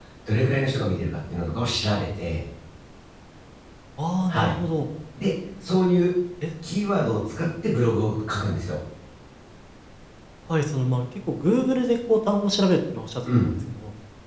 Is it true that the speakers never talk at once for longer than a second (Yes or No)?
Yes